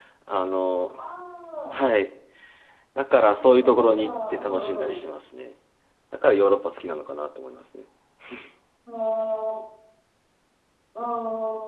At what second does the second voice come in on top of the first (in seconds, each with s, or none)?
3.2 s